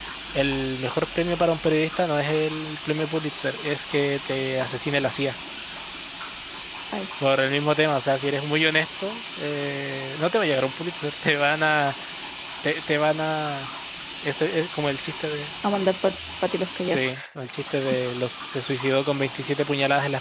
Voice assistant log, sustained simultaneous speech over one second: none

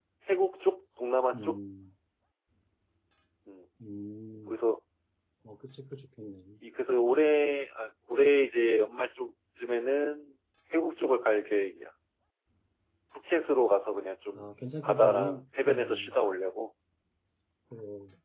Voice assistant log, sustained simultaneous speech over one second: present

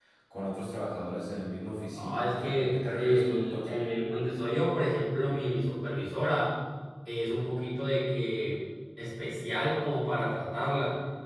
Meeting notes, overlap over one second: present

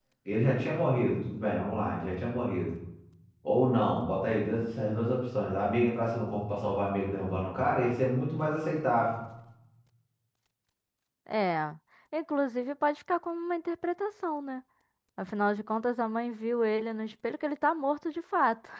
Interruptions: none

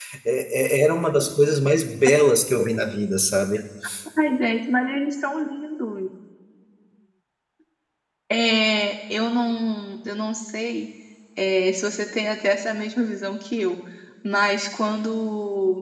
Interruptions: none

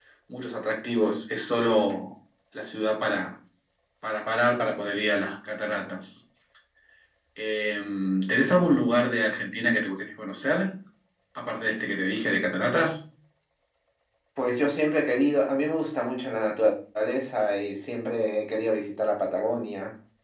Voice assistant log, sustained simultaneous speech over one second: none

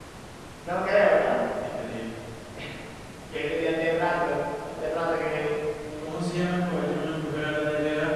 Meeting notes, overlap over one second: none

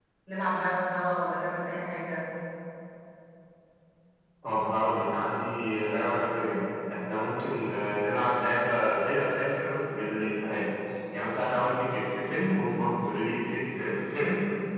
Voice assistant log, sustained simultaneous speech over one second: none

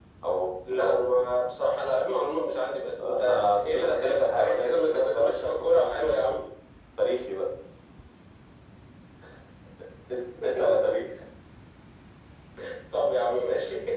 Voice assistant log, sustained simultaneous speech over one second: present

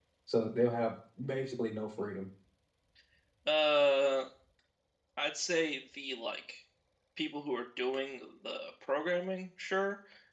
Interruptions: none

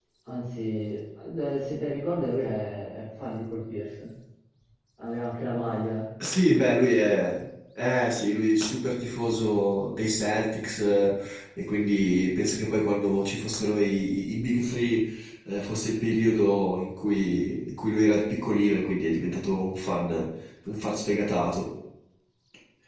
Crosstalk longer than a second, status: none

